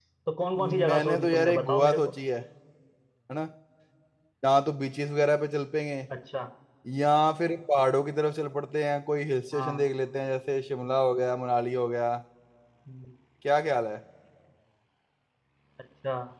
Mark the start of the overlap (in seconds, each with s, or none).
0.8 s